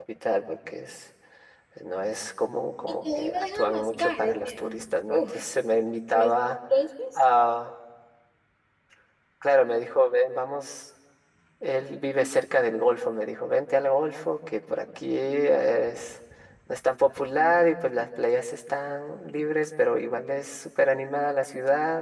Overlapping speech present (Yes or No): Yes